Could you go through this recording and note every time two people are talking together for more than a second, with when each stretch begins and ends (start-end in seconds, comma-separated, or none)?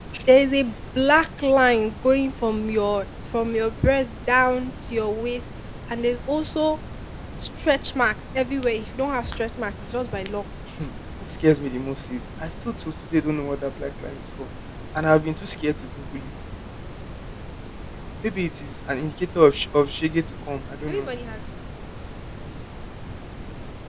none